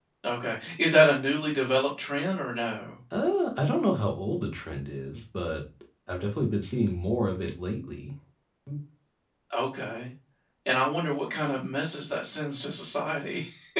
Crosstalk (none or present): none